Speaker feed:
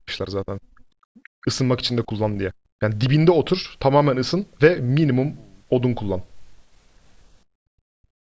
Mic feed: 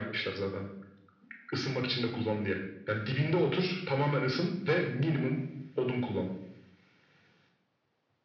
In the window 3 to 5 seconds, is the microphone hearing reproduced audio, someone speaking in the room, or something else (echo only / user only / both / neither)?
echo only